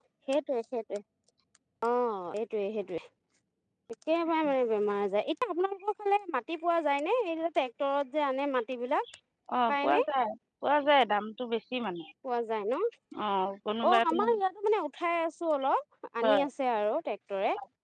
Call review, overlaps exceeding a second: none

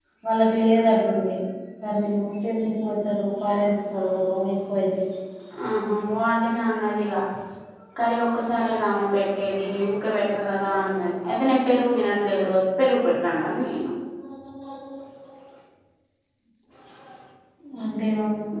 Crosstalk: none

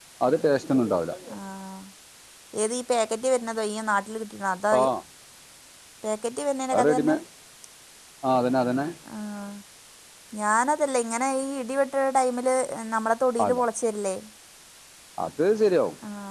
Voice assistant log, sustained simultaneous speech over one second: none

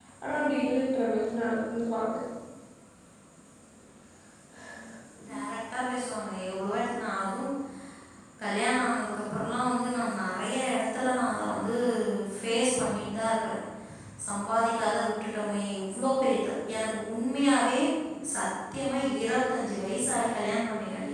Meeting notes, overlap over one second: none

